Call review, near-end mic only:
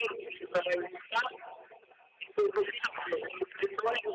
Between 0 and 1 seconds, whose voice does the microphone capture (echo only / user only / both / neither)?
echo only